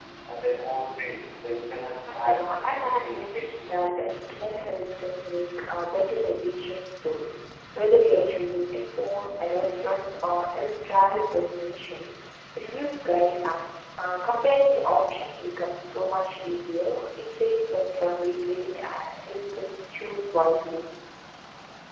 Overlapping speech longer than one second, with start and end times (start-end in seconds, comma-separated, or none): 2.1-3.6